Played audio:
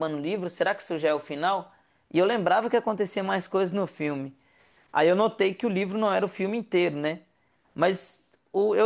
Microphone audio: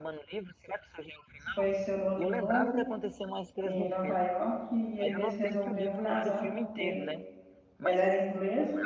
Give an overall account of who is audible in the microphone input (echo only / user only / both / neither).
both